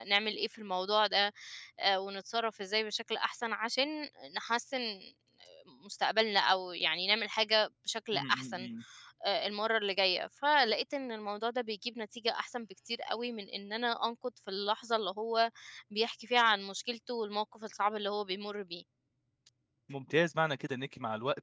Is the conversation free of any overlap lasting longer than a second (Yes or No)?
Yes